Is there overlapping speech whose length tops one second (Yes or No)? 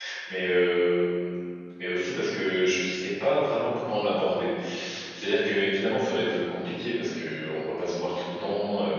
No